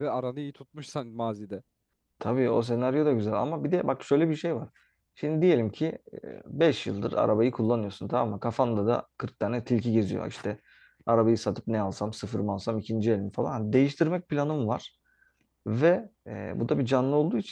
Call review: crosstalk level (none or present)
none